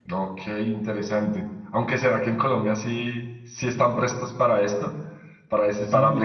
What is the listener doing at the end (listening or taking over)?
taking over